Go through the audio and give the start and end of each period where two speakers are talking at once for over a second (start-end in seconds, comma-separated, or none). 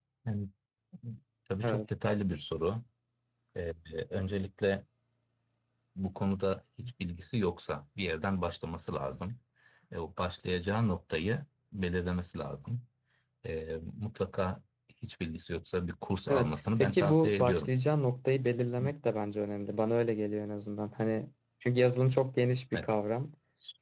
16.3-17.7